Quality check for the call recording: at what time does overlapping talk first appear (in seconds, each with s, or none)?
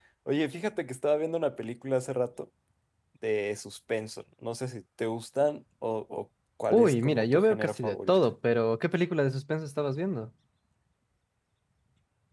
6.7 s